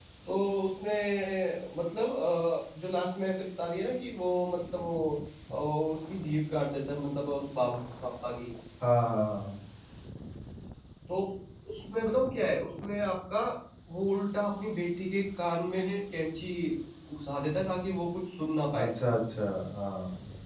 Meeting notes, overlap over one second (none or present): none